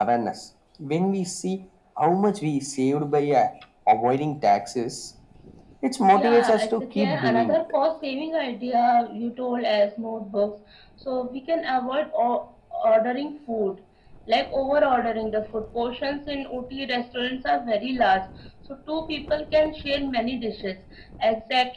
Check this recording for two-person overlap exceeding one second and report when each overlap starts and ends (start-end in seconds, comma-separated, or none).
6.1-7.6